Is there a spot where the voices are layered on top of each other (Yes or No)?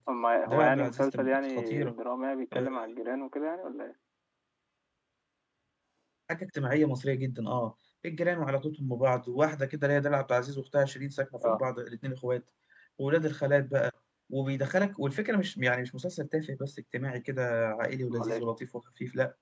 Yes